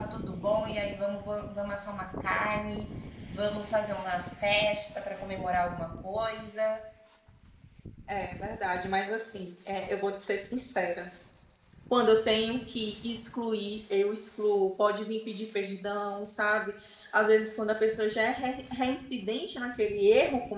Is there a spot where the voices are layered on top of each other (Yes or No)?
No